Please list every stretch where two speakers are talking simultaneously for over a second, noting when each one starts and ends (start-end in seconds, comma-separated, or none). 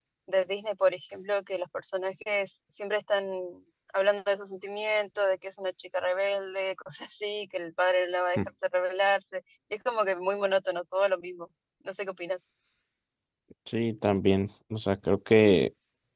none